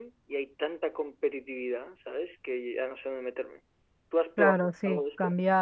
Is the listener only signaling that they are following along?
No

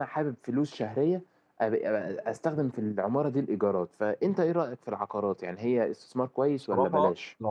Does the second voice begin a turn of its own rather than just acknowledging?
Yes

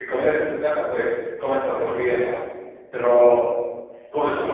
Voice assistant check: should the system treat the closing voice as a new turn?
No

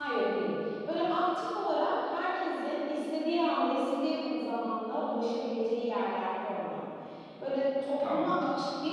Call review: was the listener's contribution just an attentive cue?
Yes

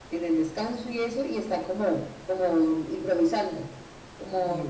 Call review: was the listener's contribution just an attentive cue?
No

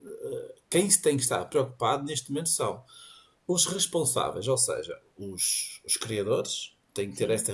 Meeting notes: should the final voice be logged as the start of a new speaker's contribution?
No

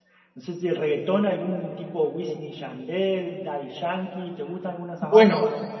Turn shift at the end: Yes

